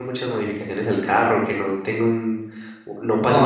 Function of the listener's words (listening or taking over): taking over